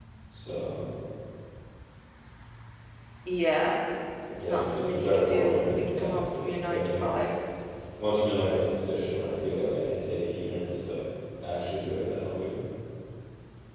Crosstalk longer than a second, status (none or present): present